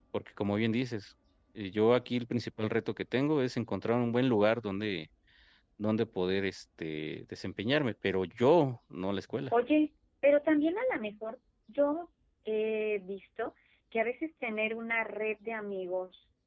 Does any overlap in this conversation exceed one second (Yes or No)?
No